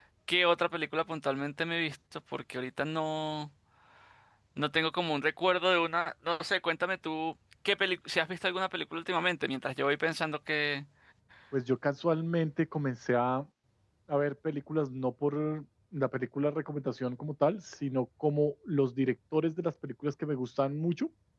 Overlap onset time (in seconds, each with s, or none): none